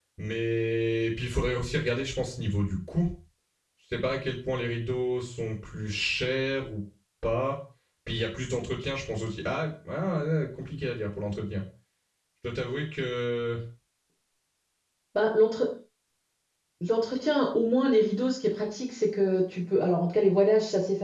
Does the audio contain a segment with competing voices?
No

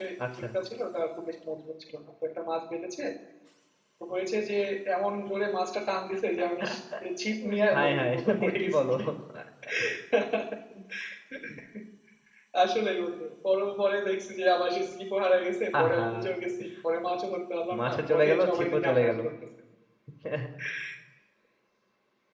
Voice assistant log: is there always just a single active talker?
No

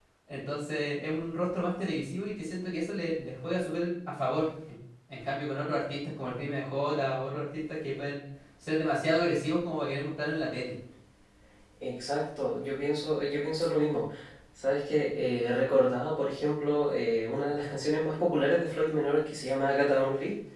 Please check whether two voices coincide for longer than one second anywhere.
No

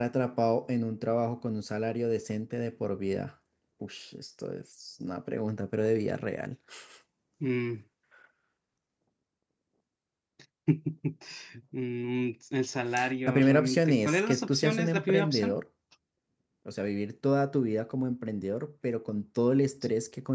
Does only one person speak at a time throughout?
No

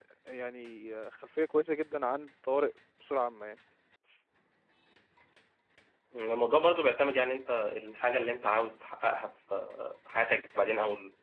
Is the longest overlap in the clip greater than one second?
No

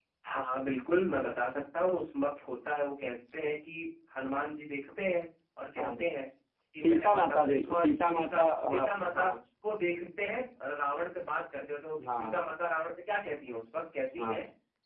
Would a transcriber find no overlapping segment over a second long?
No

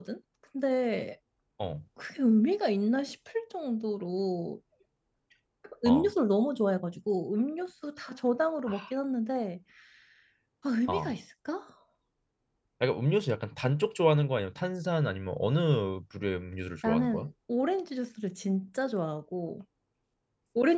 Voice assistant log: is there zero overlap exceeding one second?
Yes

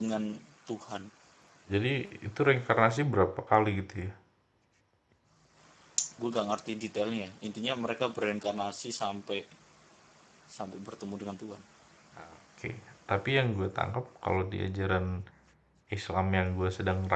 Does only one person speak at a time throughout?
Yes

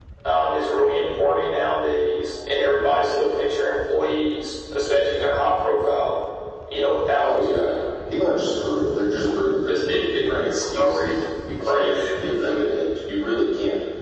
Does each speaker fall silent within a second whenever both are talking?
No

